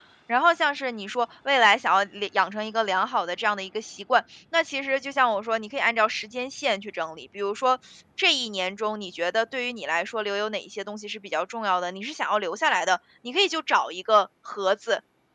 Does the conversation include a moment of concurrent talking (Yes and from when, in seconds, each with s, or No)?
No